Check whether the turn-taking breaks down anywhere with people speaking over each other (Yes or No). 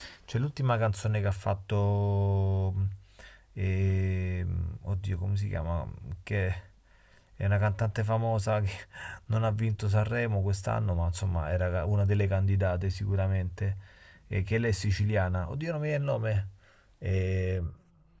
No